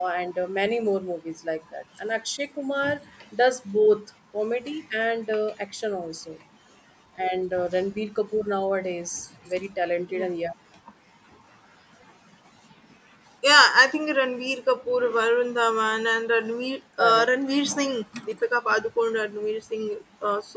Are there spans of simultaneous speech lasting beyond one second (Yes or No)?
No